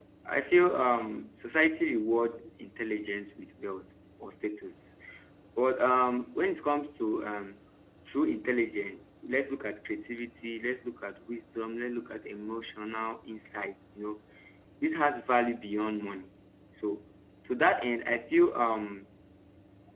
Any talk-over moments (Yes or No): No